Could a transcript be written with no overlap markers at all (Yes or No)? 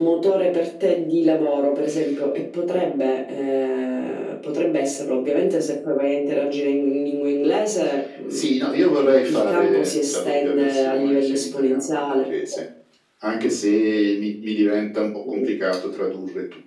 No